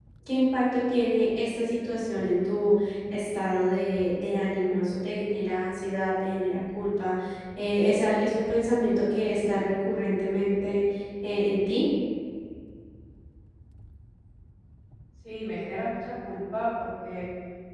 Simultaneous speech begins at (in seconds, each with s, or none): none